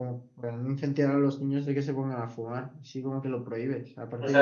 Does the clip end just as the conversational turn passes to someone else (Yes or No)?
Yes